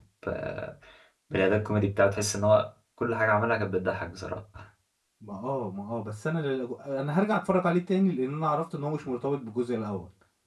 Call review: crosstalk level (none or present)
none